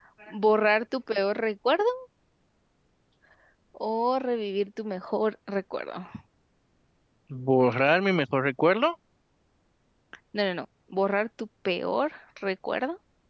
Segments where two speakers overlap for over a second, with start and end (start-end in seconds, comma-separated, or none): none